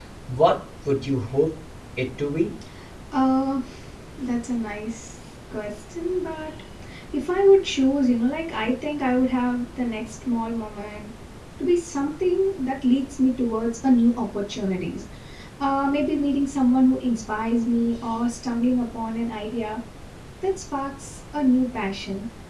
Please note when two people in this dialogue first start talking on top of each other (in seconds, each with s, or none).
none